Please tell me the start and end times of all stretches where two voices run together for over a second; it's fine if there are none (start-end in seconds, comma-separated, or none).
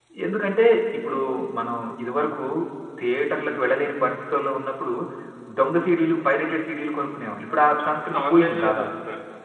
7.6-8.8